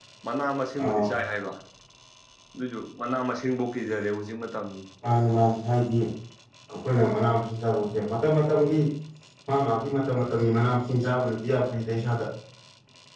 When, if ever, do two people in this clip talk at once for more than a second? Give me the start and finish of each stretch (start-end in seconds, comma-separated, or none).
none